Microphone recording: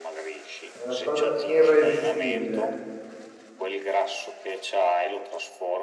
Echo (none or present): present